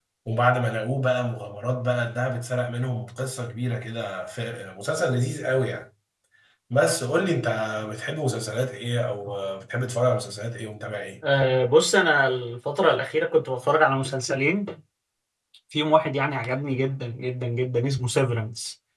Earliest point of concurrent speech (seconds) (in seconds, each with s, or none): none